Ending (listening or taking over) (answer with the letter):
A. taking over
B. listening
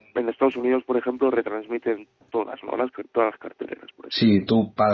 A